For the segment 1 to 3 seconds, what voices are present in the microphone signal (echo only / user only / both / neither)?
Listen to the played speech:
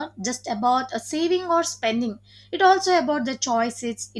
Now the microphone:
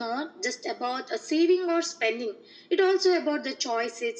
echo only